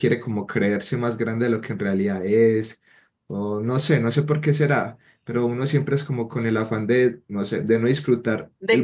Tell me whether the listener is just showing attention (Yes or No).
Yes